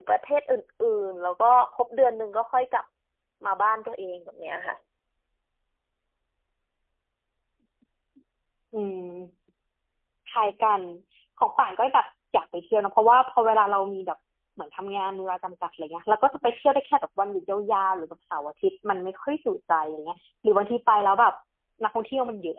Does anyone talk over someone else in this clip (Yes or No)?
No